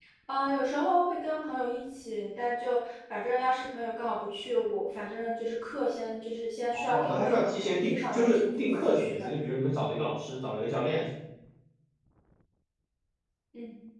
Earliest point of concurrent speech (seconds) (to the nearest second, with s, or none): 7 s